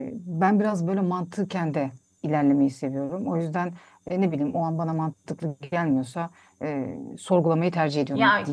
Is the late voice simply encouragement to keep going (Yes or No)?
No